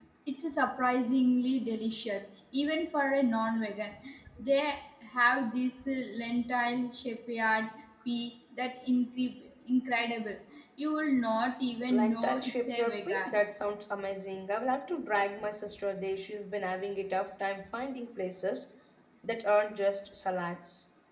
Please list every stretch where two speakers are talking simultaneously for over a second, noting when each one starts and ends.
11.9-13.4

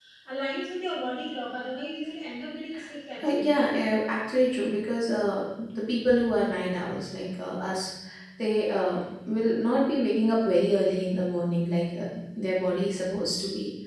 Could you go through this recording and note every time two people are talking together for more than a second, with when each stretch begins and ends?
none

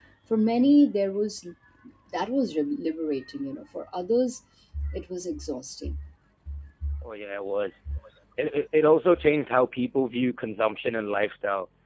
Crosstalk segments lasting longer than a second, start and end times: none

